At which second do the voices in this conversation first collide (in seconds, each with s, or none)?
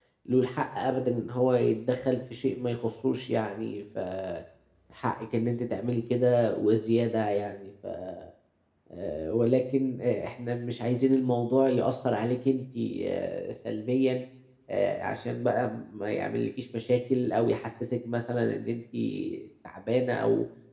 none